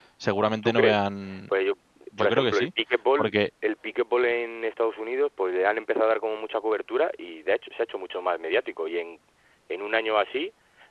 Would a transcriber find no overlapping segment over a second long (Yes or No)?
Yes